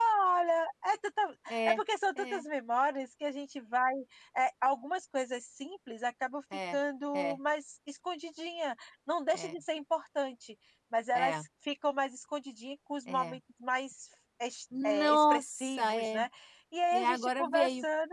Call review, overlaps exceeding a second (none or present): present